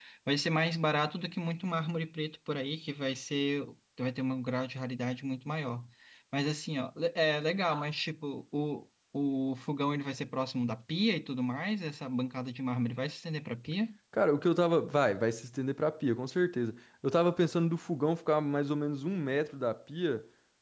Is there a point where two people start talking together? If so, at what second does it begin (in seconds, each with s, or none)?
none